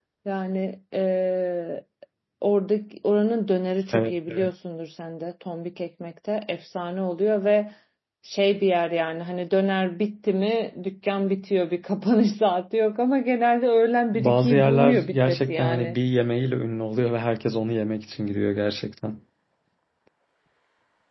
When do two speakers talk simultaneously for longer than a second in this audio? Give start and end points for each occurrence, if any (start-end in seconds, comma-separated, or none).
14.1-15.9